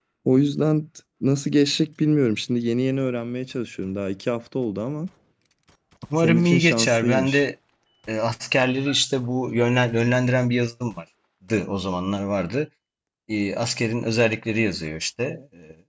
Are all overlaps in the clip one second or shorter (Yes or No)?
No